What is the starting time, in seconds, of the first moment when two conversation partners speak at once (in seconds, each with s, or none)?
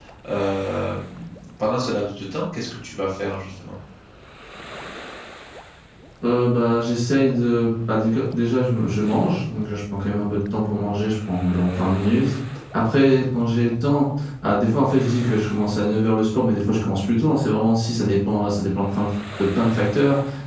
none